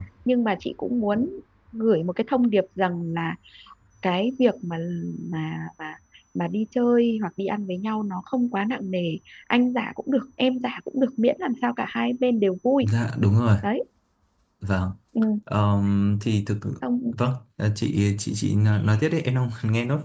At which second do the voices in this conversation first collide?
none

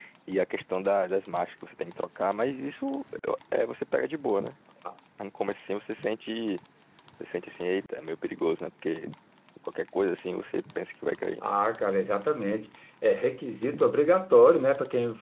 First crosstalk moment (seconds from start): none

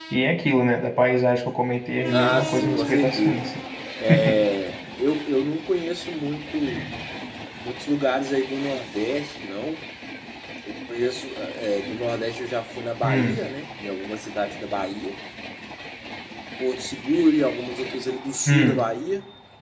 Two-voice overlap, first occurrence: 2.1 s

